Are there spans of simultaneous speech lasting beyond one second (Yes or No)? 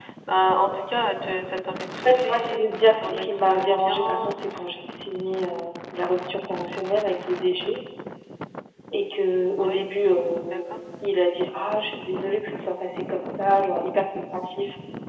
Yes